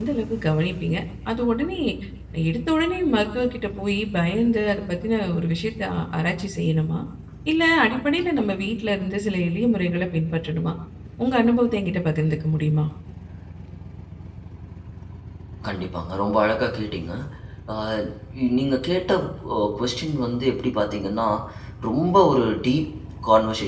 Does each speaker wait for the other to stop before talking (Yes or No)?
Yes